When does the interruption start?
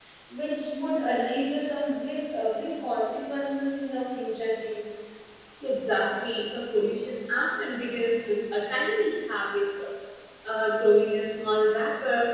none

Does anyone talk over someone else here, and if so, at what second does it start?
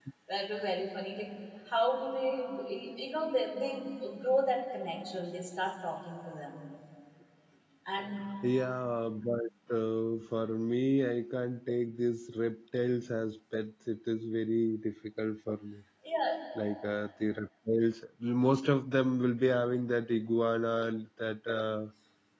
none

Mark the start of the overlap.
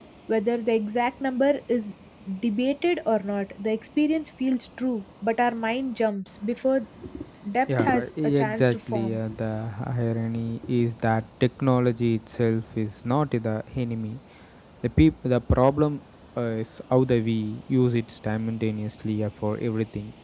8 s

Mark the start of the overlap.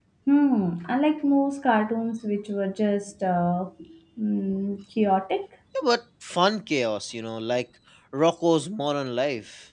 none

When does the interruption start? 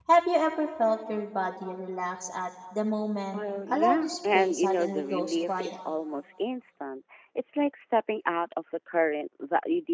3 s

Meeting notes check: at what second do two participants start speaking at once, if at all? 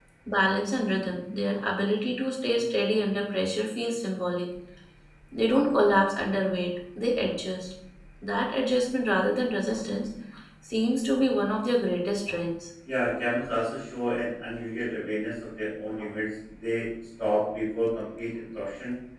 none

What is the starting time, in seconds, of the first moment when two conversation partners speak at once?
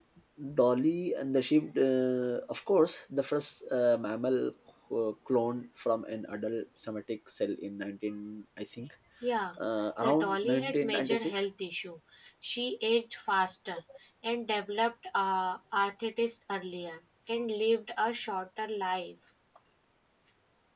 10 s

